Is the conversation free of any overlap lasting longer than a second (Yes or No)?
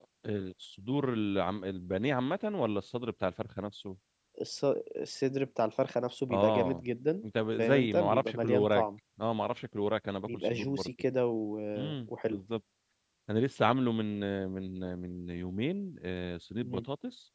No